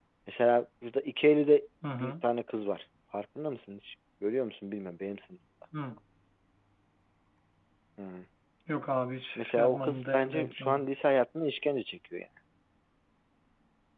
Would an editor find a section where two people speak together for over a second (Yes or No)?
Yes